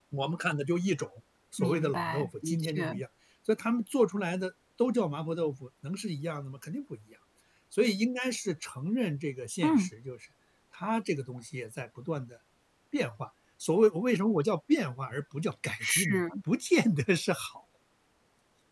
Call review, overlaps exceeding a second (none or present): present